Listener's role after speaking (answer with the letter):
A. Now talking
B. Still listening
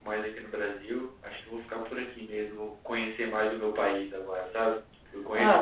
B